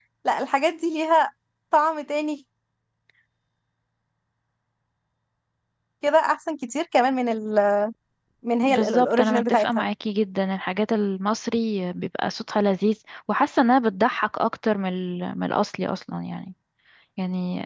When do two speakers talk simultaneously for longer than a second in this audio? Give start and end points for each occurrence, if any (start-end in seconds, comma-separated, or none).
8.7-9.8